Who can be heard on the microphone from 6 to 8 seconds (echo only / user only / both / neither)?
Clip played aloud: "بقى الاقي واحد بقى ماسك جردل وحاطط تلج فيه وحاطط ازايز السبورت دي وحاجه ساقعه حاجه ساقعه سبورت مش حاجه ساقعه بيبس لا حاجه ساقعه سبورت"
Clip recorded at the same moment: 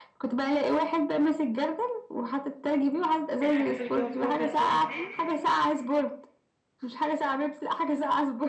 echo only